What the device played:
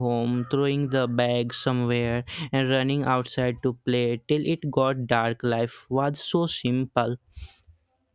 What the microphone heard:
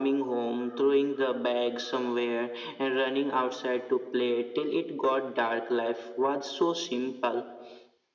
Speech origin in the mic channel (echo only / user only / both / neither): echo only